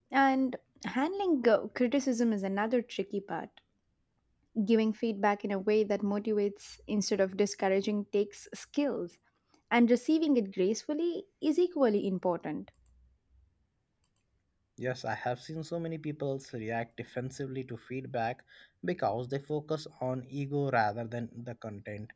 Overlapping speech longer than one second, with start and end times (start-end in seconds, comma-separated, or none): none